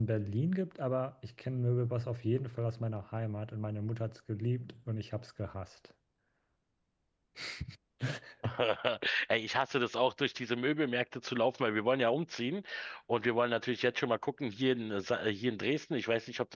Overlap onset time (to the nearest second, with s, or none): none